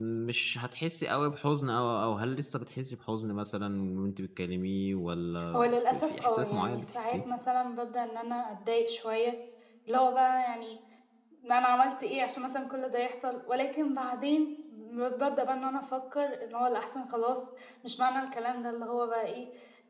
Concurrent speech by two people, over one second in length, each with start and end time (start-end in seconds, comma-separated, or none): 5.5-7.2